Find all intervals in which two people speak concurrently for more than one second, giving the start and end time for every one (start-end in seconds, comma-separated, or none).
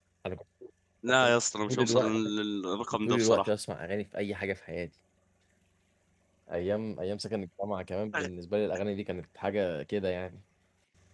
none